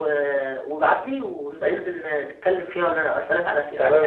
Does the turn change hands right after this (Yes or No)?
Yes